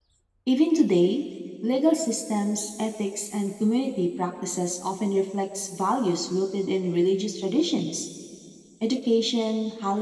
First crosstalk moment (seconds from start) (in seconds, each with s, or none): none